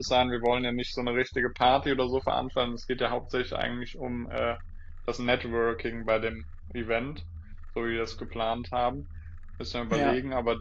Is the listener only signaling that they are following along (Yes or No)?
Yes